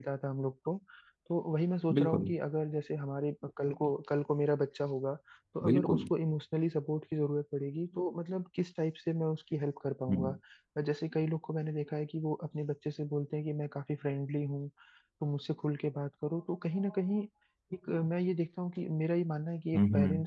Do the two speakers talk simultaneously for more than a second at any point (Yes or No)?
No